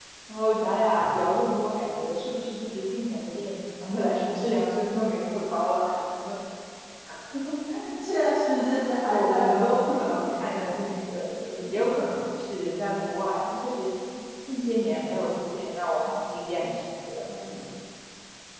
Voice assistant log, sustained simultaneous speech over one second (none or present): present